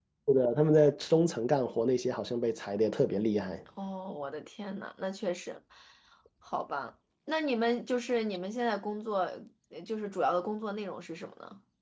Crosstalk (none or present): none